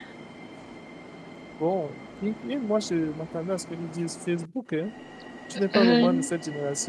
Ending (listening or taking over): listening